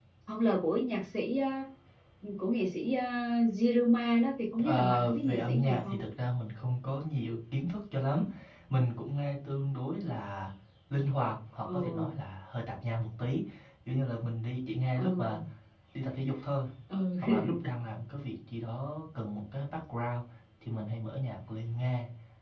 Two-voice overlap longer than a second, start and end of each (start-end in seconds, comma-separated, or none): 4.6-6.0